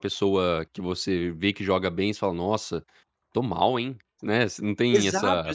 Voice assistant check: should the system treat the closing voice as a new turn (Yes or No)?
Yes